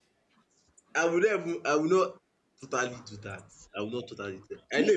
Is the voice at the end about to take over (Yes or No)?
No